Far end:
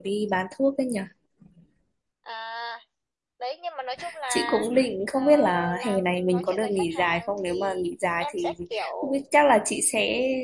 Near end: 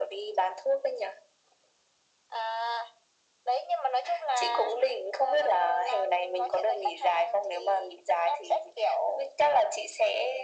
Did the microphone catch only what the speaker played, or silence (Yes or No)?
Yes